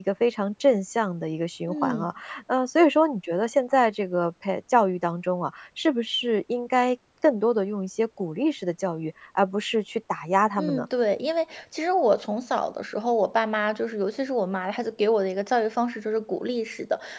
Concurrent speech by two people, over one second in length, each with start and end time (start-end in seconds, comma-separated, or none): none